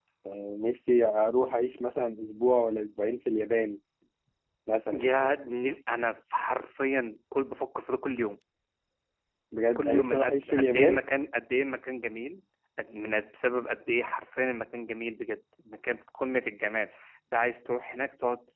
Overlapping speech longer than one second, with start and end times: 9.8-11.0

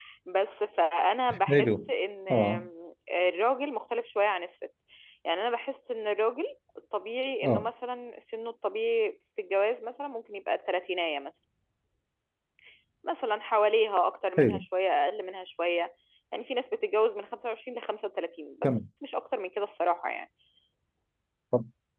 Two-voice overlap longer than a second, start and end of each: none

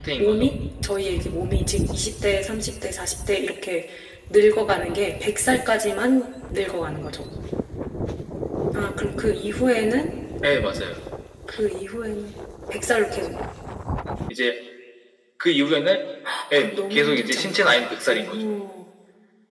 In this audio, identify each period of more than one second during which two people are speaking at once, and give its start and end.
16.6-18.4

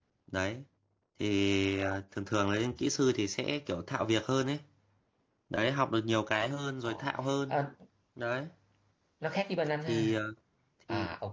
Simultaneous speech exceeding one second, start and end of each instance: none

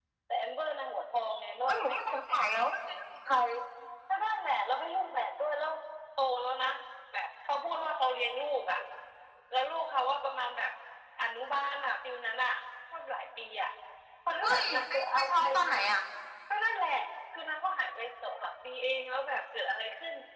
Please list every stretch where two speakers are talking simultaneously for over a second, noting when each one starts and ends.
14.4-15.7

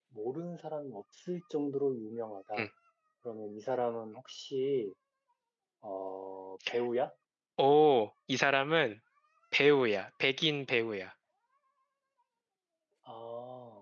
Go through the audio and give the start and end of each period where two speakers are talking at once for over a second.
none

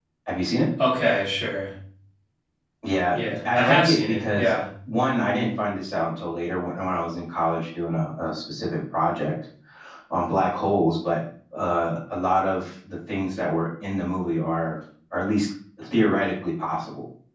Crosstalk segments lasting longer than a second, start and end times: 3.1-4.6

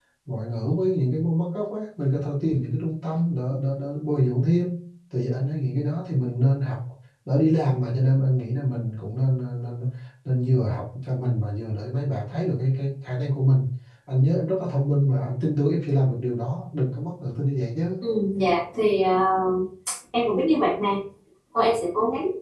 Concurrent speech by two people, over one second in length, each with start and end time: none

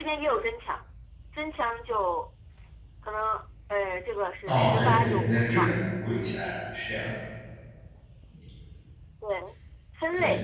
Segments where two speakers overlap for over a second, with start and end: 4.5-5.7

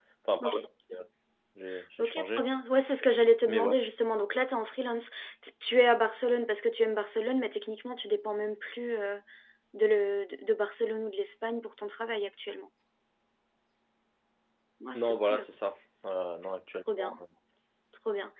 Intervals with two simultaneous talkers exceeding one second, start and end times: none

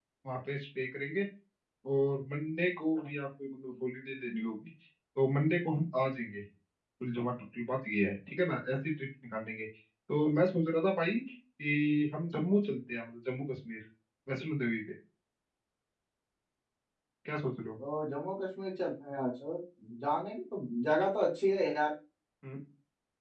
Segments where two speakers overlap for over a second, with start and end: none

